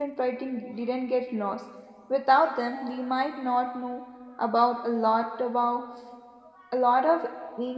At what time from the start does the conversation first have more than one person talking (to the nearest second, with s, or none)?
none